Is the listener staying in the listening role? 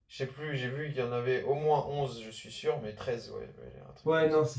No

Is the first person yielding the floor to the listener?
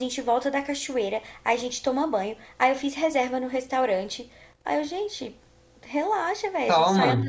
No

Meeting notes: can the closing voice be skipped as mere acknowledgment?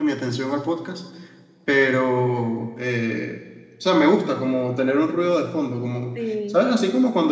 Yes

